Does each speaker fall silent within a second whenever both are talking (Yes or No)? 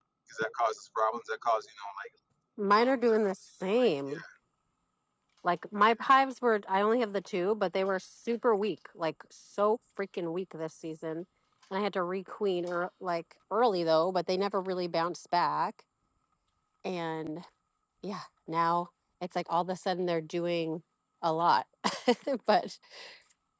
Yes